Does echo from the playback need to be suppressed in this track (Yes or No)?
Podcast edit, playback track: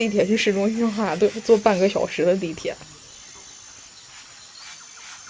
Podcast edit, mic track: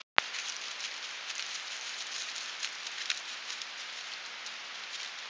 No